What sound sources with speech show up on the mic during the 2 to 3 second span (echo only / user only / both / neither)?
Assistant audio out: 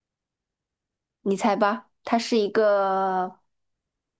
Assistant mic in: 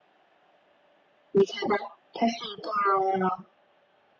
echo only